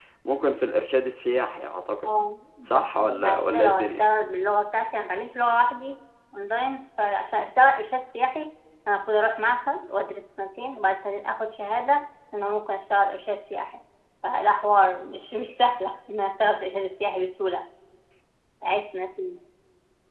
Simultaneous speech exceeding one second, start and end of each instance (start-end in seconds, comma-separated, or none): 2.6-4.0